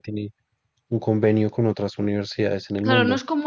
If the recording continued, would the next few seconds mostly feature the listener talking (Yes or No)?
Yes